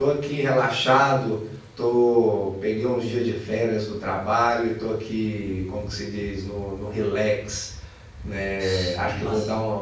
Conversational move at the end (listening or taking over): listening